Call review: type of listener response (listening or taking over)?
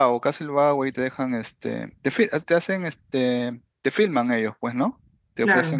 listening